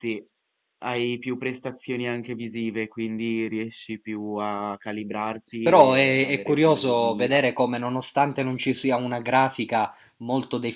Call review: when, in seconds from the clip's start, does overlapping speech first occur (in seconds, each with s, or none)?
5.7 s